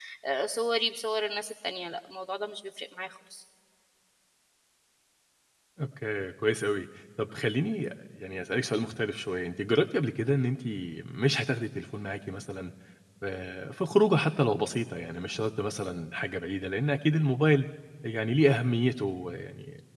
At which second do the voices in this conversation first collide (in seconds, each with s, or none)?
none